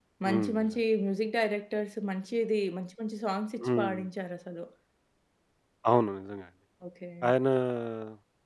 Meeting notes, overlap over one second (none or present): none